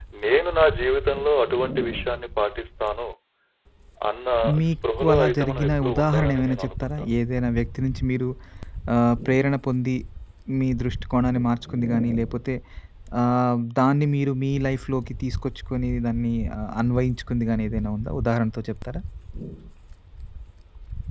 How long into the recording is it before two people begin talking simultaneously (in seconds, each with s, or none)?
4.7 s